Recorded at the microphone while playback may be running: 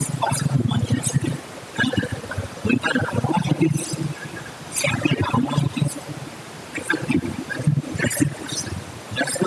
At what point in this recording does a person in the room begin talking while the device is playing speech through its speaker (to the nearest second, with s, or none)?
none